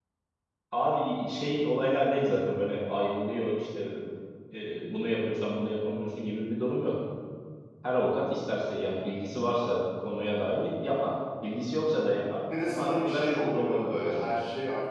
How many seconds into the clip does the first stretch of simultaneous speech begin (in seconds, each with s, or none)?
12.5 s